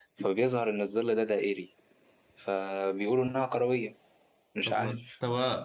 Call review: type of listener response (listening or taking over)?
taking over